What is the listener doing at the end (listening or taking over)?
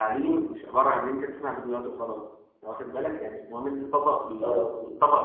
listening